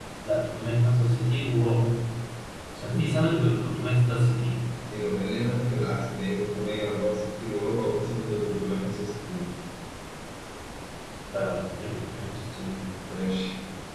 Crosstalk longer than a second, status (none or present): none